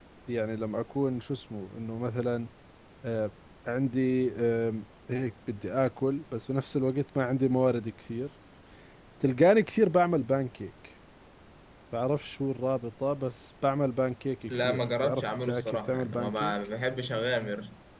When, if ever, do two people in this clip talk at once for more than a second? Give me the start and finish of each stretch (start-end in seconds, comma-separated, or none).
14.5-16.5